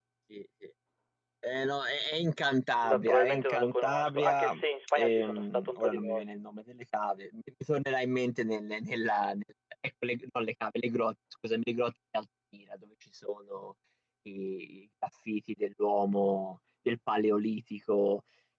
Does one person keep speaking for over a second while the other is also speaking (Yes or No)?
Yes